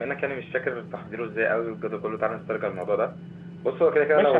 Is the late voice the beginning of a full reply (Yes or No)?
Yes